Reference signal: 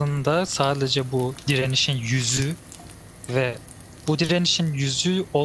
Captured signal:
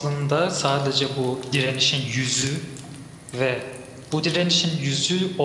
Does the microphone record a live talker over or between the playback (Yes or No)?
No